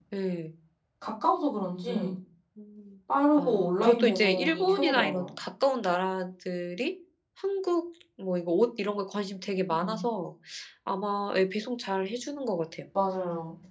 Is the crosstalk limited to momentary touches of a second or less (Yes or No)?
No